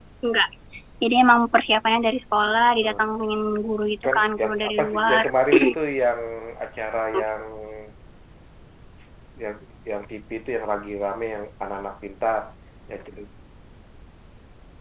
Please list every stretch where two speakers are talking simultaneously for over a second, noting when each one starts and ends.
4.0-5.2

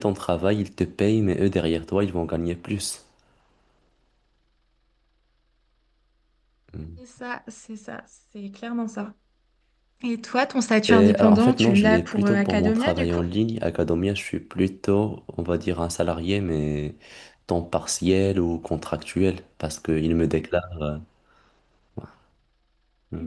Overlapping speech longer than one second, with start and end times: 10.9-13.2

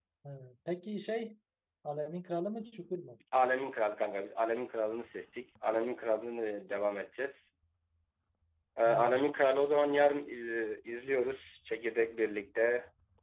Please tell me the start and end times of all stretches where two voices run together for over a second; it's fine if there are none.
none

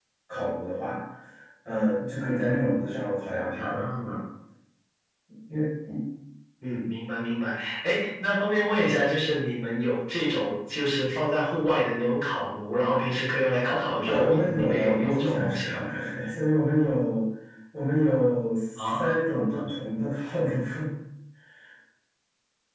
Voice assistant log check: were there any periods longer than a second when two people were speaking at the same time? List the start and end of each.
14.0-15.8

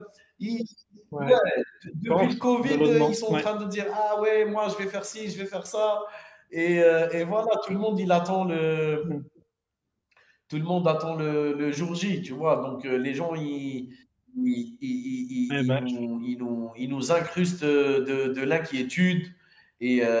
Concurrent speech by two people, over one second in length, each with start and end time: 2.1-3.4

